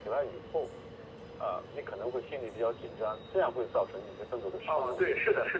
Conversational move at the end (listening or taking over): taking over